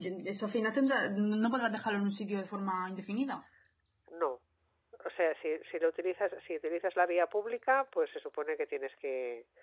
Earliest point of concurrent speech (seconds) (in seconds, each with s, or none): none